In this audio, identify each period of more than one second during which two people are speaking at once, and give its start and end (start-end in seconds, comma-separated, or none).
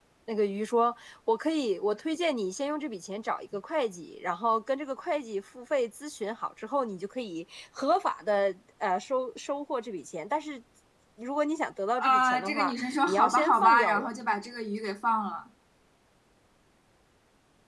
12.0-14.1